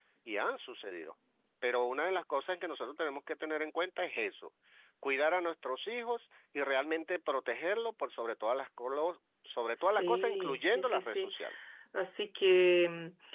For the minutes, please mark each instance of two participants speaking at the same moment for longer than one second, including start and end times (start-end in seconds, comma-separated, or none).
9.8-11.3